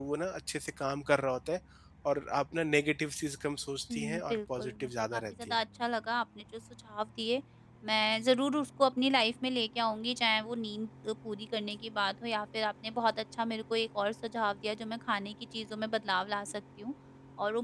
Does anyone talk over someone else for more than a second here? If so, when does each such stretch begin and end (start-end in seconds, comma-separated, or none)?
3.9-5.5